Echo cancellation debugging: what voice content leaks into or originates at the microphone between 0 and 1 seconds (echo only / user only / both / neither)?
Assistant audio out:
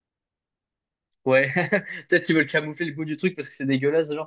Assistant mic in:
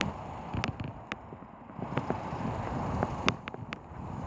neither